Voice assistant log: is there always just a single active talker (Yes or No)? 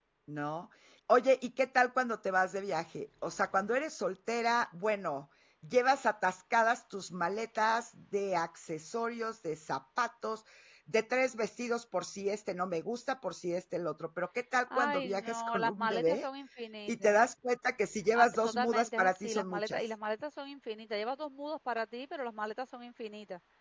No